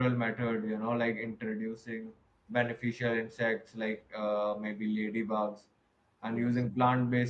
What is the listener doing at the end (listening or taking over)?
listening